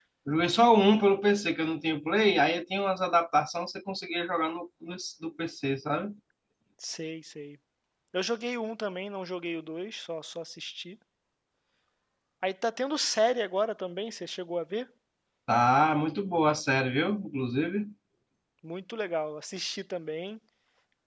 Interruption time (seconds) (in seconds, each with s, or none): none